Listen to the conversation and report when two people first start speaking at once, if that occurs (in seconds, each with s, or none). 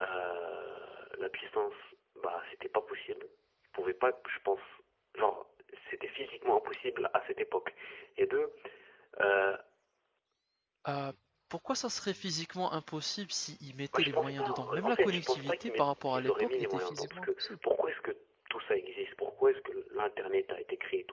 13.9 s